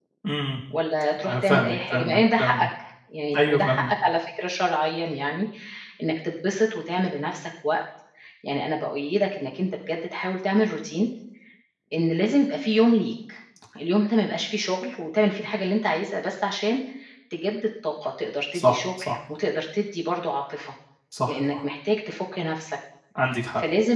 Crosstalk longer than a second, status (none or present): present